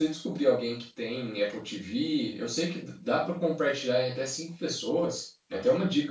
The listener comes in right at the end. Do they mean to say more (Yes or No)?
No